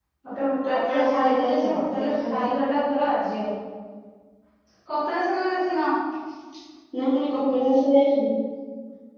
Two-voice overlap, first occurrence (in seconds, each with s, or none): 0.7 s